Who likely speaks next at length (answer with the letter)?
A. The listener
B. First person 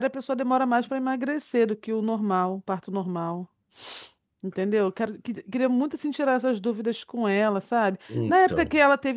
B